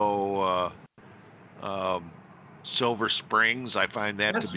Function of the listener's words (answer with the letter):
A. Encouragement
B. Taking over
B